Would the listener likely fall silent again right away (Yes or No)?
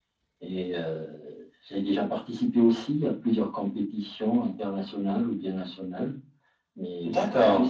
Yes